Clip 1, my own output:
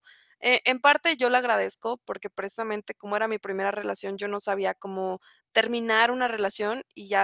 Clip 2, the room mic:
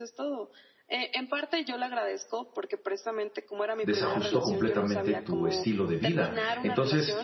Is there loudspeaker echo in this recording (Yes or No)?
Yes